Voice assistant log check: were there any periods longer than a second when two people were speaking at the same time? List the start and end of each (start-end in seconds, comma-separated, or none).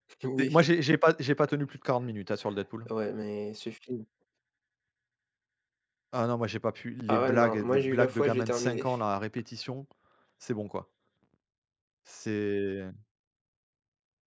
7.1-8.9